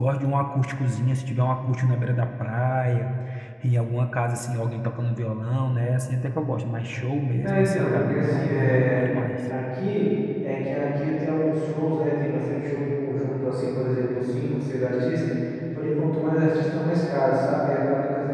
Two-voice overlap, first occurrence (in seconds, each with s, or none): 7.4 s